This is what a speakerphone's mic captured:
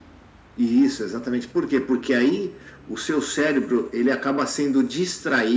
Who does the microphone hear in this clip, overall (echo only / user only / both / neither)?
echo only